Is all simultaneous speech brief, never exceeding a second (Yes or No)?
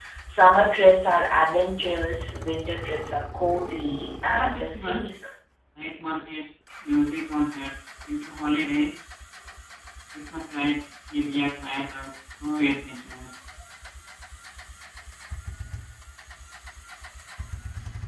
No